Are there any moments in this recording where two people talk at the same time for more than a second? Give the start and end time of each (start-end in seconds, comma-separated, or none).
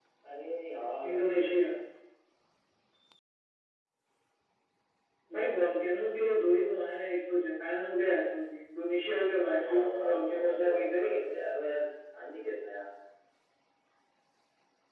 9.6-11.2